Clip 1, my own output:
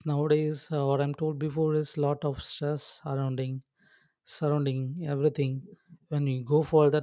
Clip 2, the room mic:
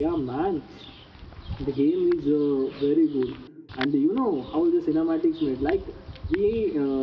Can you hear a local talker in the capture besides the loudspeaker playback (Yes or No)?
Yes